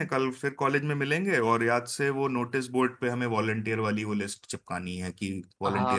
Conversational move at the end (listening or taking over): taking over